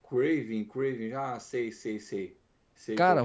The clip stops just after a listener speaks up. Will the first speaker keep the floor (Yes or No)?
No